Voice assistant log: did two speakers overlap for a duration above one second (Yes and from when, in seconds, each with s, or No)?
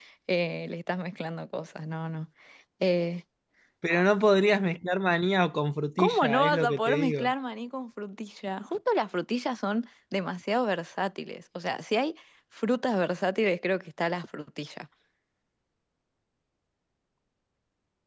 Yes, from 6.0 s